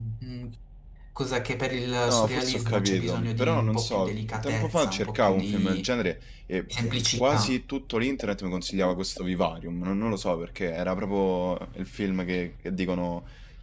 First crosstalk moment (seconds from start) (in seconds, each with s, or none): 2.1 s